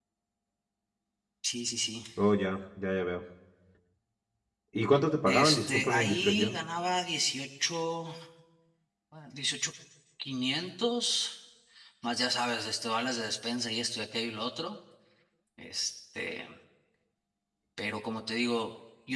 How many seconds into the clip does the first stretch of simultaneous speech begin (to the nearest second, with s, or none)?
5 s